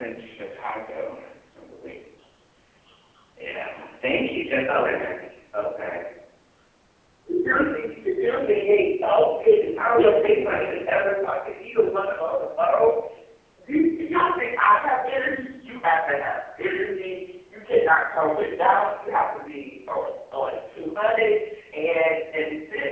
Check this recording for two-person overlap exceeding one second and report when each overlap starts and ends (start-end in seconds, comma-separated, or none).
none